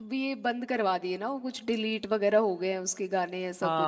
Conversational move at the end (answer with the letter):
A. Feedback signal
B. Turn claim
B